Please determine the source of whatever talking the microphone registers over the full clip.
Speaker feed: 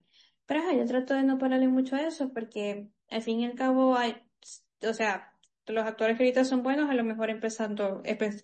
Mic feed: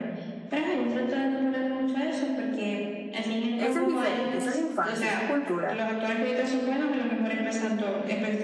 both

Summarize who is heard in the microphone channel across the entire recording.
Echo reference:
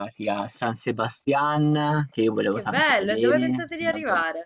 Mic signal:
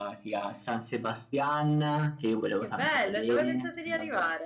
echo only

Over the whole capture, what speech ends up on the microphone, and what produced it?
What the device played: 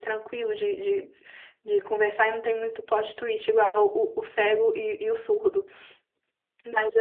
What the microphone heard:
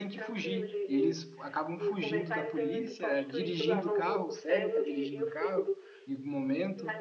both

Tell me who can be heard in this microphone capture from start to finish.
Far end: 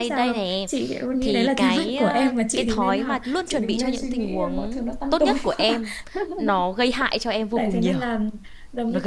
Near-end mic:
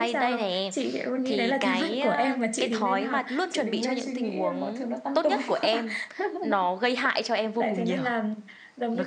echo only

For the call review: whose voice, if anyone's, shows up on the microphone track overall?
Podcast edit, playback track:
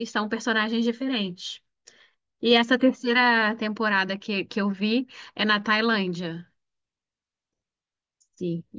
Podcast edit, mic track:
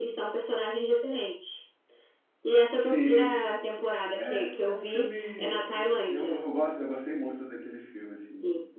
both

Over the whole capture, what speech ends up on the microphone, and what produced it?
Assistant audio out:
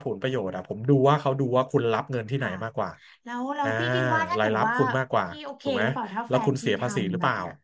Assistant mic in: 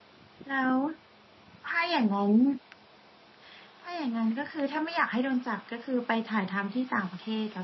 user only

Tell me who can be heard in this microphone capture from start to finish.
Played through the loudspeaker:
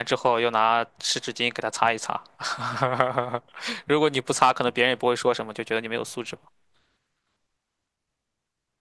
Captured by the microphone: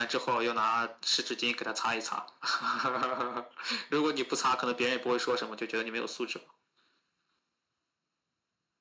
echo only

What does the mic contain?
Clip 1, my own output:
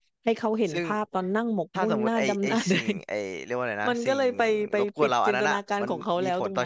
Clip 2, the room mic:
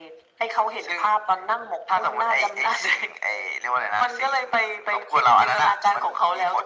echo only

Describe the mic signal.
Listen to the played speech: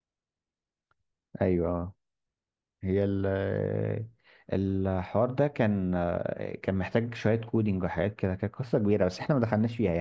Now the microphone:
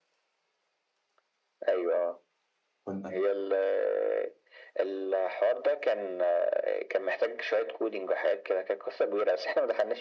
both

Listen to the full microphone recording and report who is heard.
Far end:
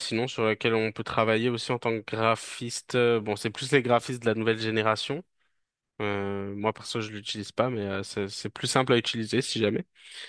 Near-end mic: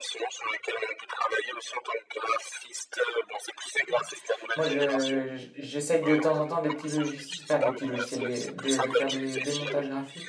both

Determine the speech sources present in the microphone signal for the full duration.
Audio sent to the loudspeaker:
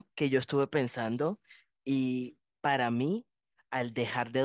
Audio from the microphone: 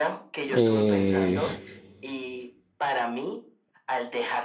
both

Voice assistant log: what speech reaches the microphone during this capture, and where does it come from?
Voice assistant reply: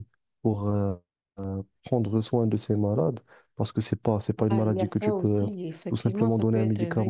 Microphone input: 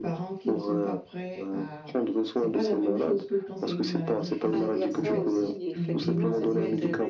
both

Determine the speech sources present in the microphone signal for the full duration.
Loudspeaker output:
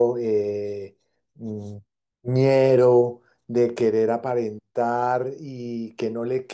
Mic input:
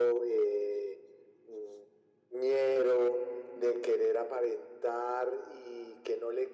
echo only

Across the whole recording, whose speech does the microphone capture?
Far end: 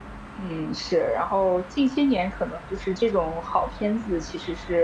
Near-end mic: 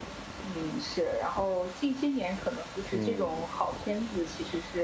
both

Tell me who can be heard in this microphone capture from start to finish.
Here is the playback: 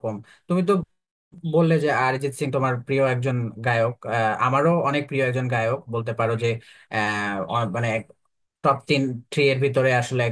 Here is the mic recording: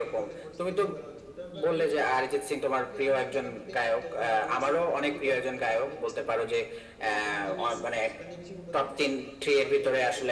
both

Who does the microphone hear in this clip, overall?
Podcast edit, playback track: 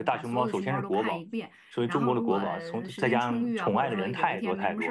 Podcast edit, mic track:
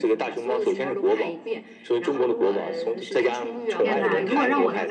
both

